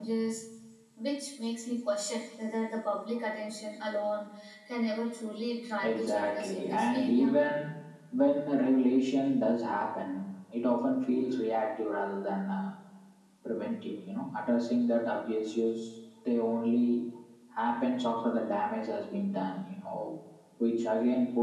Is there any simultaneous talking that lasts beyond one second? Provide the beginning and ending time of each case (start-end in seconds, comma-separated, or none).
5.8-7.4